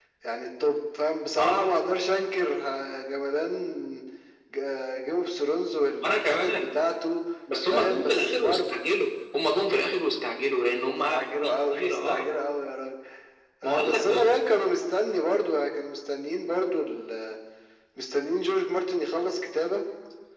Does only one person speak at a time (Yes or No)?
No